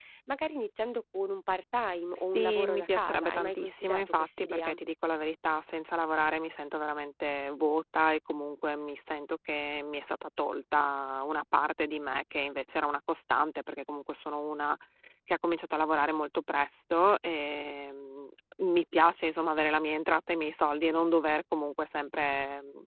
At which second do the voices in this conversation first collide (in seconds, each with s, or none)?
2.3 s